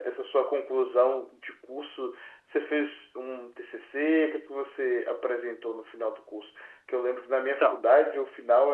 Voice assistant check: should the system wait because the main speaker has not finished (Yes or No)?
Yes